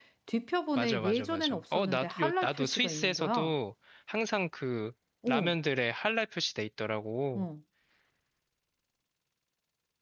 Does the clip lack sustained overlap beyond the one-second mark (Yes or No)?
No